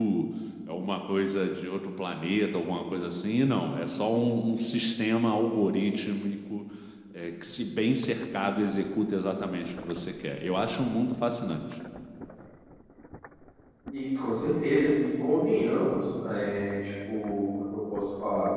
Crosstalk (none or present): none